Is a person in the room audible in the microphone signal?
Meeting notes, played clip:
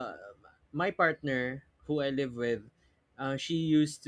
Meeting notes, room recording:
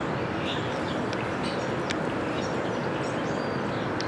No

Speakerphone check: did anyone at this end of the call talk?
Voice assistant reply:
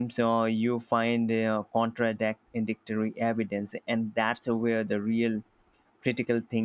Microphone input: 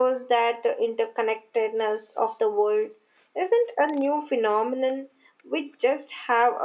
Yes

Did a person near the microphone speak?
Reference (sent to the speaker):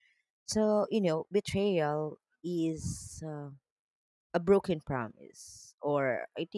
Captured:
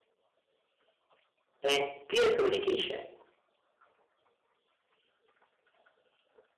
Yes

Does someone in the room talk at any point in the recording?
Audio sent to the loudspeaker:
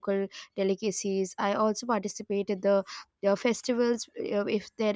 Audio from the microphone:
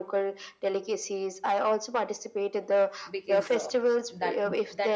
Yes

